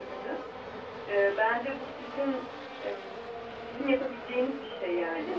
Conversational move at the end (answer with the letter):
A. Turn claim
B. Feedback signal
B